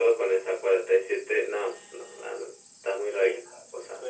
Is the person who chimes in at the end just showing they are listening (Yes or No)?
No